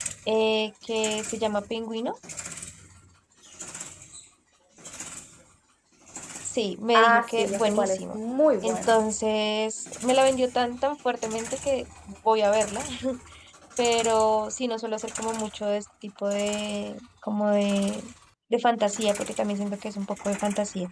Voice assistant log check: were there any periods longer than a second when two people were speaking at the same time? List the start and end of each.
6.9-8.2

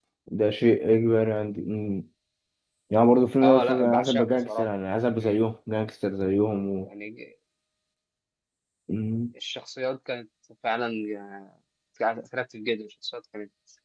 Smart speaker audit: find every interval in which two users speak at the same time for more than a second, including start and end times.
3.4-4.6

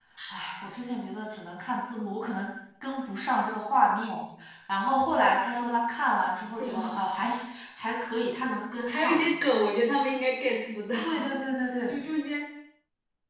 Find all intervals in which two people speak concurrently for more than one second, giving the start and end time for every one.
none

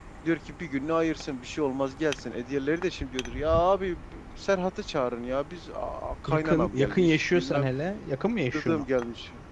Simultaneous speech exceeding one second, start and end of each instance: 6.3-7.7

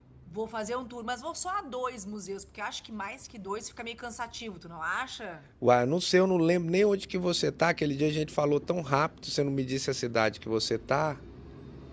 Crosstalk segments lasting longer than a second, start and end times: none

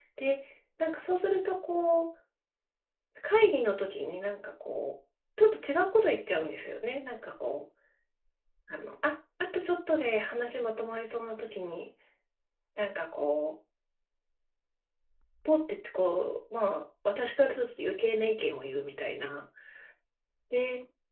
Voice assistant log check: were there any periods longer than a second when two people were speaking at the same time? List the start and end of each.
none

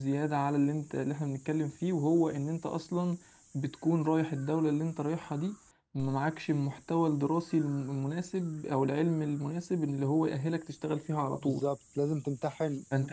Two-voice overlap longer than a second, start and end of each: none

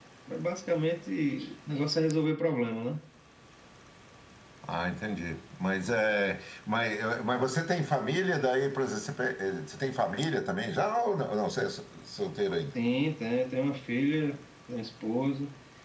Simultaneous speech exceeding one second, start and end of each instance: none

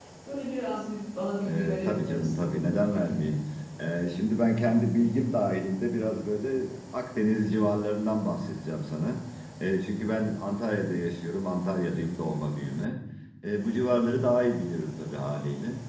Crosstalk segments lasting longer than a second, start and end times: 1.5-3.2

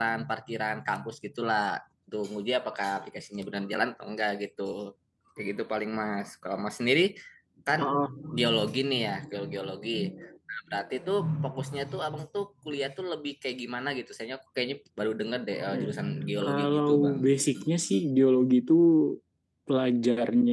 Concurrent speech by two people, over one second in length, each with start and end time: 16.4-17.7

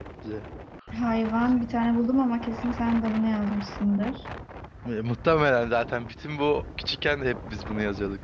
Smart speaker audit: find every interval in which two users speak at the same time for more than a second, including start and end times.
none

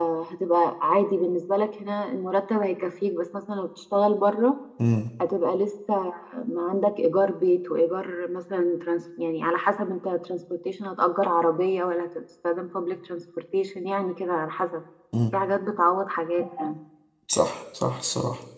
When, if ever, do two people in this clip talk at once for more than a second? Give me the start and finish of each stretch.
none

